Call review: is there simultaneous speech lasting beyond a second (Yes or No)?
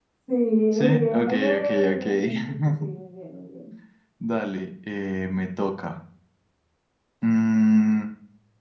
Yes